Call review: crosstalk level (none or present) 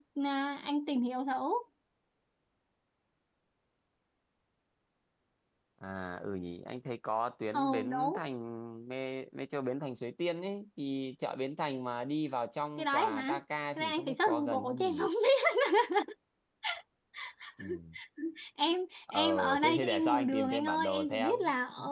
present